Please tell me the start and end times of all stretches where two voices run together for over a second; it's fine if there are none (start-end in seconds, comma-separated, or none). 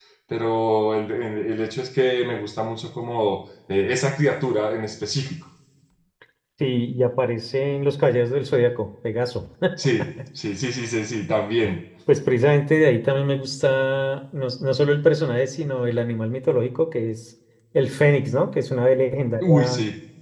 none